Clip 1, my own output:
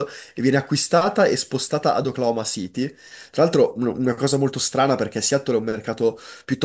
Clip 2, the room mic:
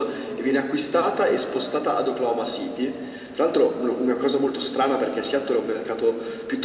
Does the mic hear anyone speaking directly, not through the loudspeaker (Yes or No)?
No